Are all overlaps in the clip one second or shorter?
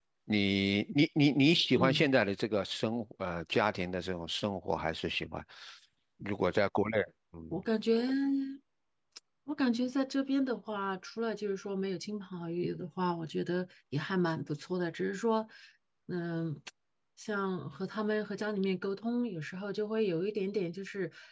Yes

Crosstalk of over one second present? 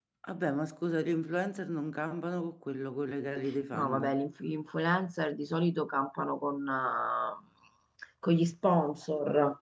No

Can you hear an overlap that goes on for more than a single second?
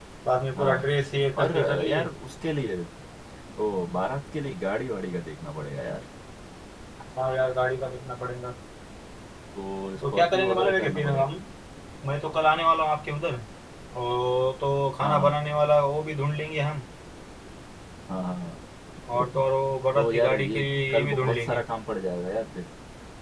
Yes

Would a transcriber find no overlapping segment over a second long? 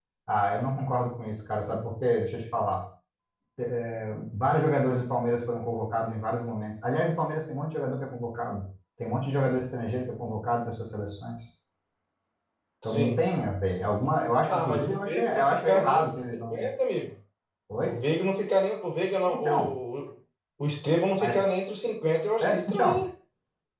No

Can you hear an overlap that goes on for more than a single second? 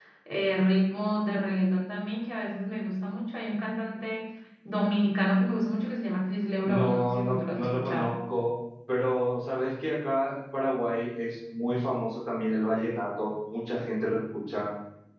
Yes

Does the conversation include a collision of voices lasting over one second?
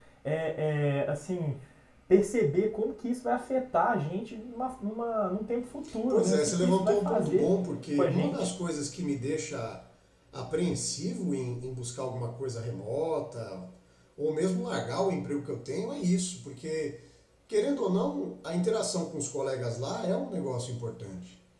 Yes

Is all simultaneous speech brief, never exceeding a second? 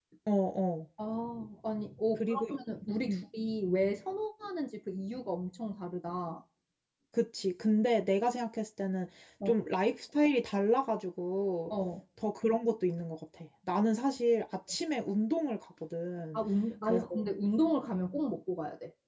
Yes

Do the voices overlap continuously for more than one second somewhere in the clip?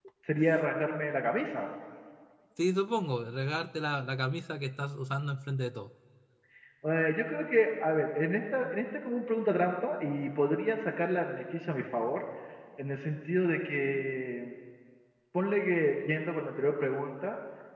No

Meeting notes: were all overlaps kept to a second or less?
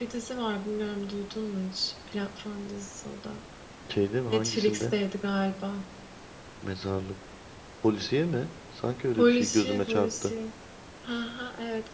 No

